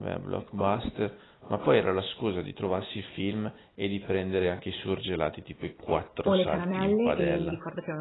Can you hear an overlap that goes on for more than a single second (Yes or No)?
Yes